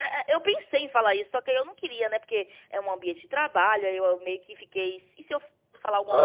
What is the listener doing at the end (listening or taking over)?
listening